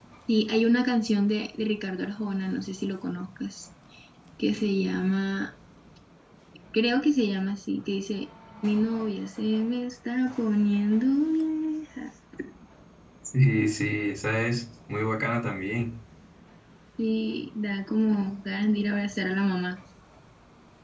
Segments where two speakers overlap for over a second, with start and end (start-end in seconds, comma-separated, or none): none